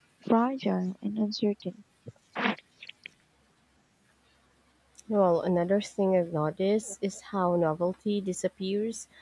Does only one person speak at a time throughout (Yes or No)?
Yes